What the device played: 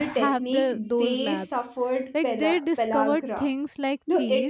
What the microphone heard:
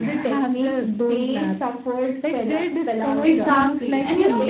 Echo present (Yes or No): Yes